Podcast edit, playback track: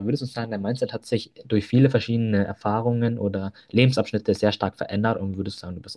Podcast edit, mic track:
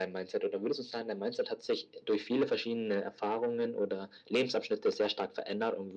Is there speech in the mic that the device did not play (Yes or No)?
No